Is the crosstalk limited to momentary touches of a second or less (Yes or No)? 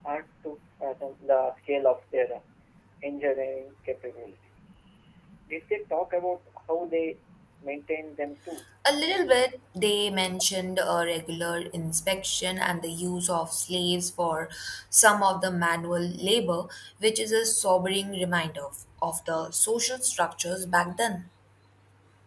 Yes